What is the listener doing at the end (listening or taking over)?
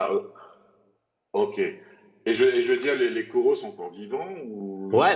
taking over